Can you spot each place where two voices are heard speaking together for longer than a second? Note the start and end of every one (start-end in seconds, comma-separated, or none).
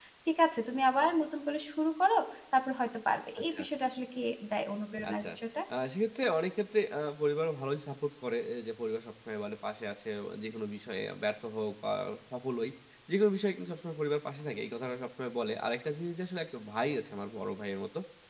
none